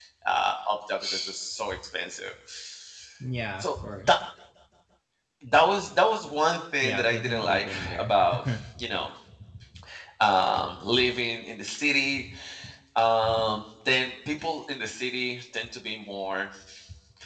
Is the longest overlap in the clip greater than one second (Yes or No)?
Yes